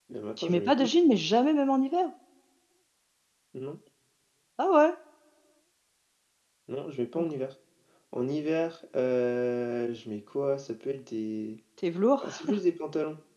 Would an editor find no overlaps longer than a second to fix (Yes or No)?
Yes